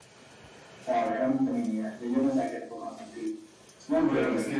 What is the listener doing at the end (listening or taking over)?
taking over